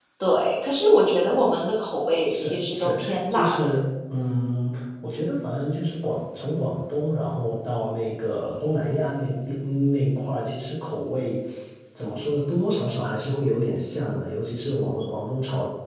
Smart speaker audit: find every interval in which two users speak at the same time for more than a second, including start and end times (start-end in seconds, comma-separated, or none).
2.3-3.5